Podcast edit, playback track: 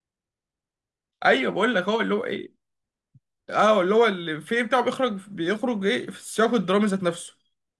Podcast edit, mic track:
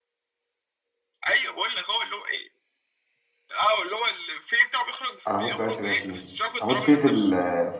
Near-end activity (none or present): present